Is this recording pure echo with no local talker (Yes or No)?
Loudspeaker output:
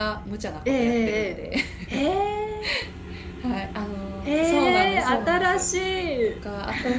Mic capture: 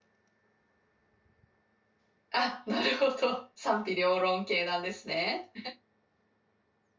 No